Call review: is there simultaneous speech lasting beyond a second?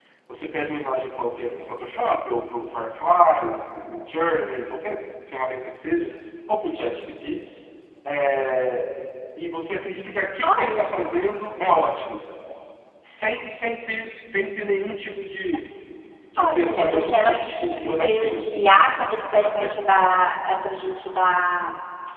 Yes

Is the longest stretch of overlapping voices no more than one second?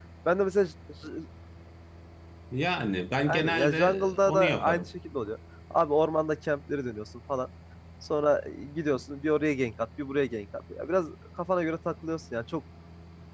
No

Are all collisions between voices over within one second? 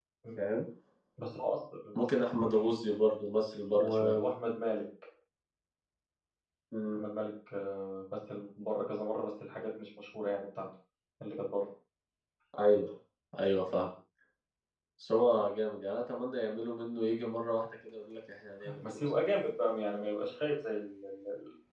Yes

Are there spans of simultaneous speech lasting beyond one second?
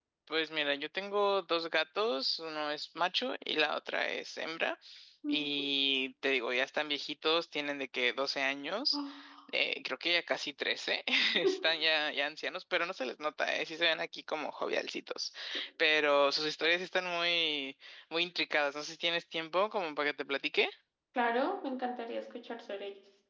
No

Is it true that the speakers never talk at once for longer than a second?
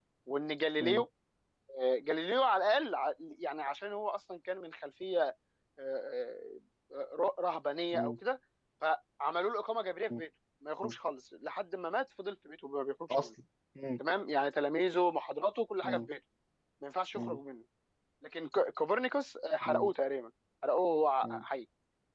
Yes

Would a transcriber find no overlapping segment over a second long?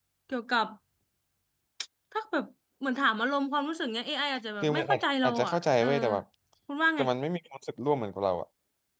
No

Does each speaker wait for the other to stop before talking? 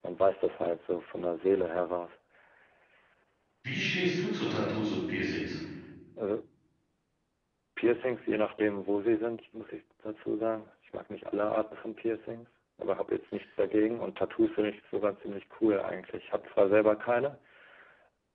Yes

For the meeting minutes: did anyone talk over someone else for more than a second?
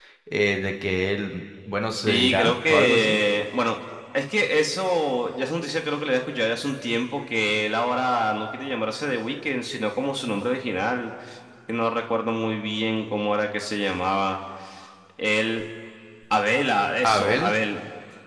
Yes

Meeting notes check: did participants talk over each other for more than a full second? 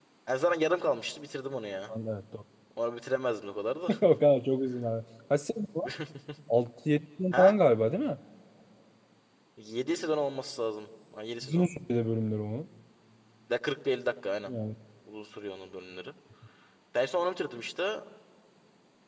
No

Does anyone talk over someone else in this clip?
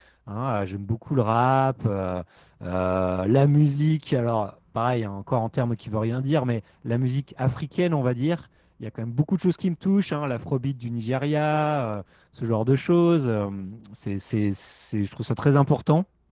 No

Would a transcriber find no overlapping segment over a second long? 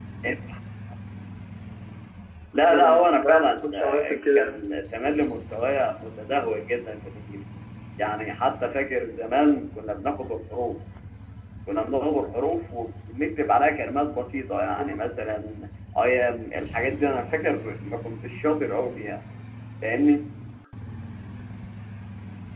No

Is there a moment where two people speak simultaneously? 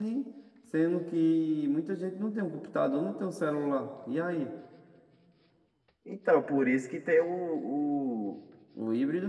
No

